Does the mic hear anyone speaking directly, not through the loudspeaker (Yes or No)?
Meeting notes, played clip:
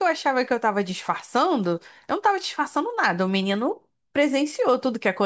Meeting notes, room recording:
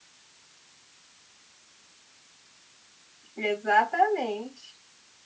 Yes